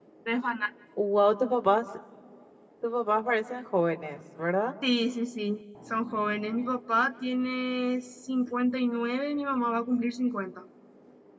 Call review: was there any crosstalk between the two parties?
No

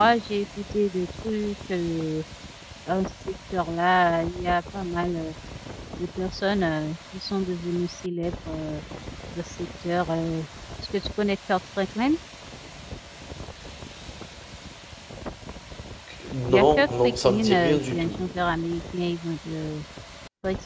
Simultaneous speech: Yes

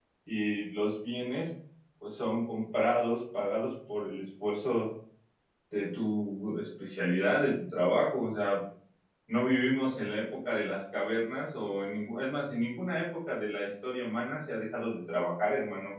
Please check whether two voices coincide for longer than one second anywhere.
No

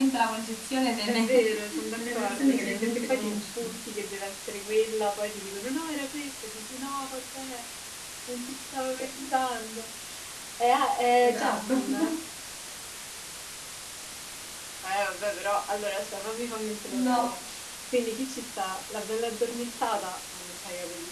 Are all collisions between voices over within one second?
No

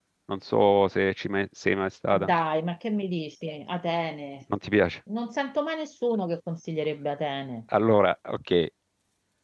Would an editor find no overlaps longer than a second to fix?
Yes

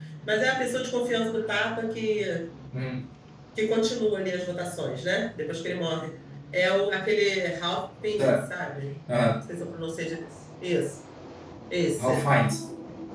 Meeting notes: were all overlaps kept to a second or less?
Yes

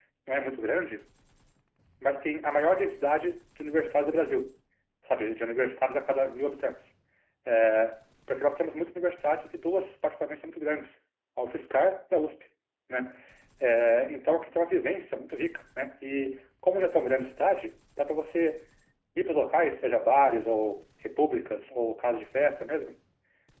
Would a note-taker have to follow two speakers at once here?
No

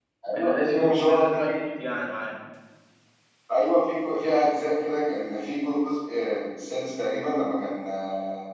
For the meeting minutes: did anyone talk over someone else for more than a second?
Yes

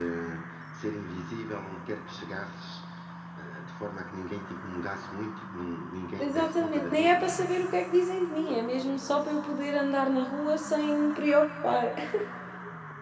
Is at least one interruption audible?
Yes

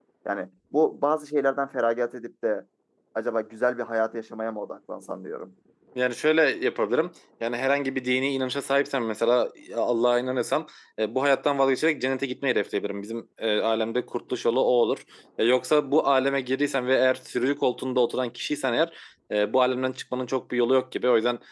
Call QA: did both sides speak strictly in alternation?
Yes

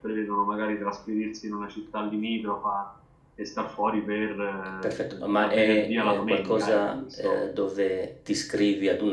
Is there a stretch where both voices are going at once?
Yes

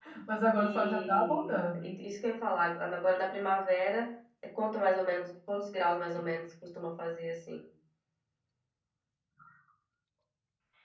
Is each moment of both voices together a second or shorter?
No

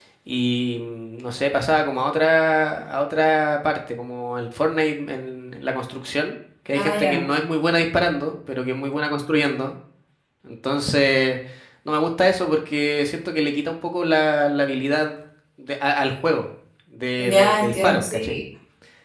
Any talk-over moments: Yes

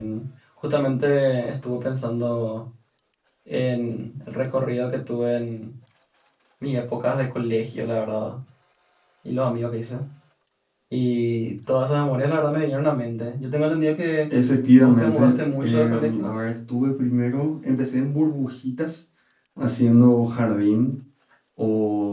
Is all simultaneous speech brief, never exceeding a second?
No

